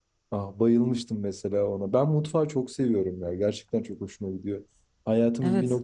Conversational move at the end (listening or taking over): listening